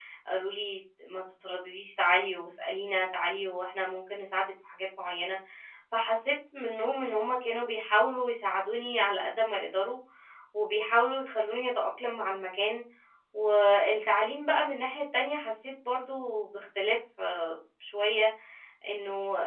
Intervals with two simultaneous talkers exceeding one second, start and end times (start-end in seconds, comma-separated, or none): none